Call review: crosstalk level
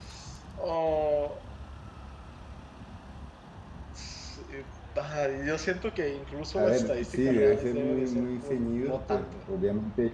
present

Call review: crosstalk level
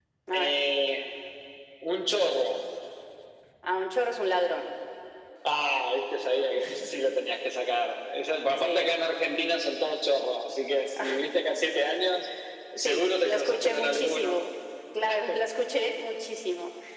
present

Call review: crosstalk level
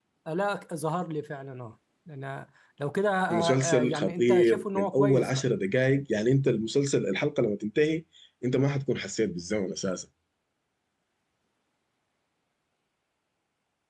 present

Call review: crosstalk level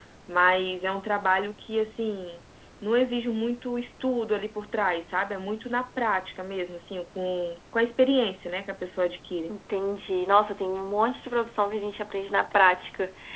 none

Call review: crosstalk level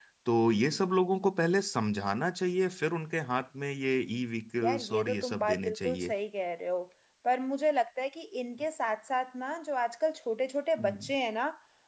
present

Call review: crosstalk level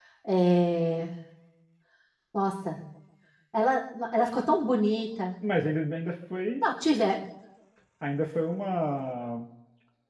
none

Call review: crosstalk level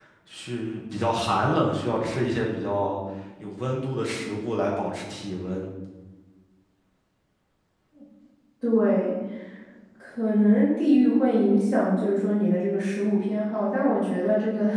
none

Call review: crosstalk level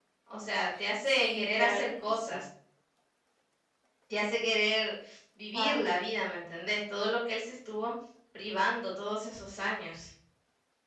present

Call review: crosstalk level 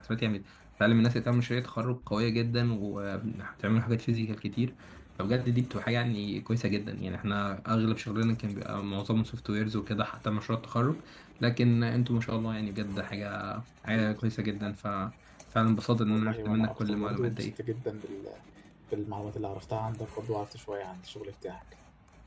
present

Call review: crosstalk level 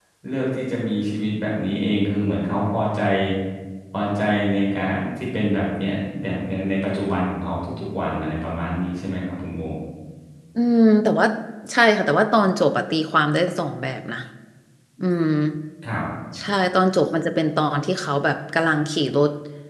none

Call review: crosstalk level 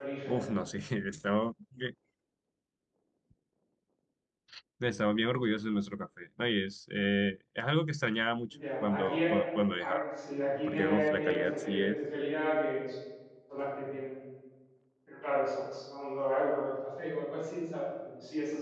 present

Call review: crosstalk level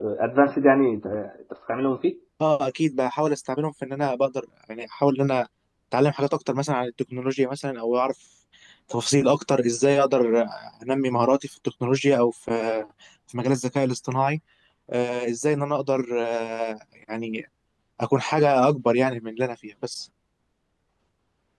none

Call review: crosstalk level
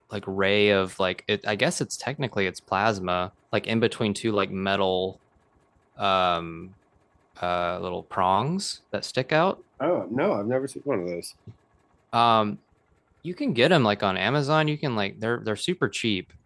none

